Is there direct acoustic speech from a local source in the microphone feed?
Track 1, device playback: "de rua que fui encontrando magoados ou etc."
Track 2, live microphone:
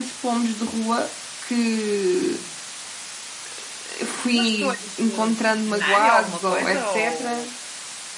Yes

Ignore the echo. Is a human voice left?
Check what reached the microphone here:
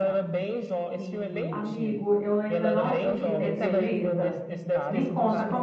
Yes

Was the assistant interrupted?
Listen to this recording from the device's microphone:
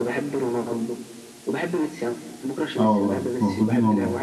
Yes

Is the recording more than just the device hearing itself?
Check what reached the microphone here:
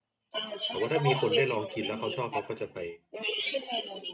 Yes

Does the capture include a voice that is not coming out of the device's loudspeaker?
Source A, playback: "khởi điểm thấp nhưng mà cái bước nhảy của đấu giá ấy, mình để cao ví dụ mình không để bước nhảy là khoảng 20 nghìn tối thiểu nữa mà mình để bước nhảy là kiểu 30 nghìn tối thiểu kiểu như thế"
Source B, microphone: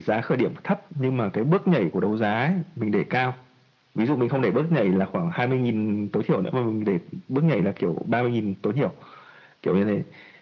No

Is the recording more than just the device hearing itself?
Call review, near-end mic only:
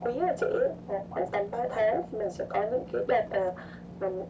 No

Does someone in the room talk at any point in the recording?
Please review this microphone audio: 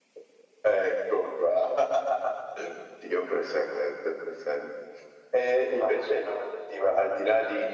No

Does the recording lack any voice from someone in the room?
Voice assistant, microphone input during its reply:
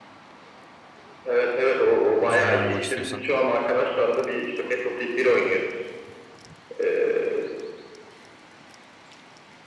No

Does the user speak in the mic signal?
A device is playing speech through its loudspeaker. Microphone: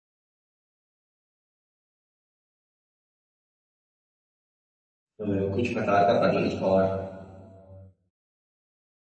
Yes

